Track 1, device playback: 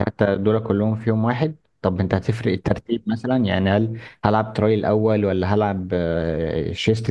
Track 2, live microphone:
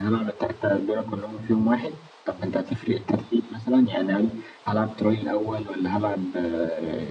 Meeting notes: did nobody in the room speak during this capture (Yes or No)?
Yes